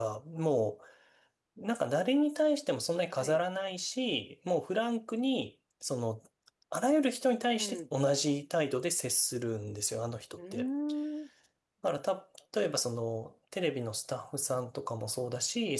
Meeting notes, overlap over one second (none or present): none